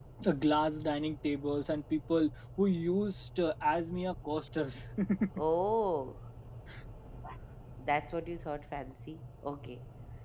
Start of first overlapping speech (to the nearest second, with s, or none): none